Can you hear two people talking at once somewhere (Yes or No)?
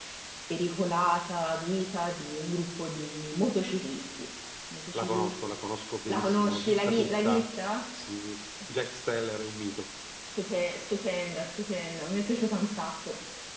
Yes